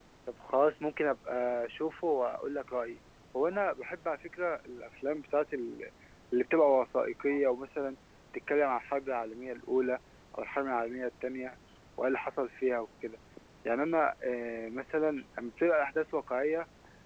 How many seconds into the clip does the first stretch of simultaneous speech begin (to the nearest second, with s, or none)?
none